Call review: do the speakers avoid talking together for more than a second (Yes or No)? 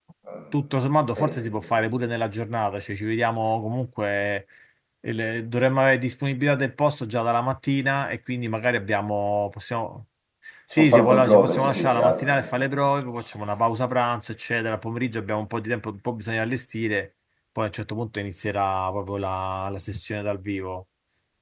No